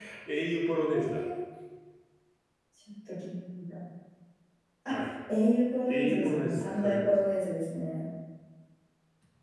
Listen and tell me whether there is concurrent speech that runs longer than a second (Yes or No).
Yes